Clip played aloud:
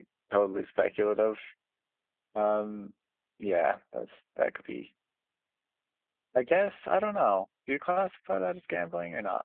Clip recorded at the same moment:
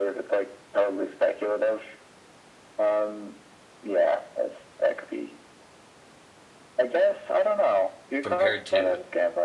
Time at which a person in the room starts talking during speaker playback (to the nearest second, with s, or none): 8 s